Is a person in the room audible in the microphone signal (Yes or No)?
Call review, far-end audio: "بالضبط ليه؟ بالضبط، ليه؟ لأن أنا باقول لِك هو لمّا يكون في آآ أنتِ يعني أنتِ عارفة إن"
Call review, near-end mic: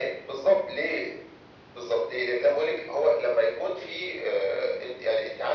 No